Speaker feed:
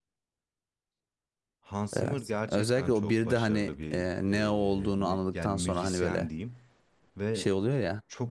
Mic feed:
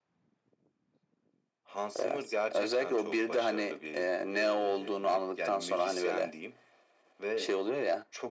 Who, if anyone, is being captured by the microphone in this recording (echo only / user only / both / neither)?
echo only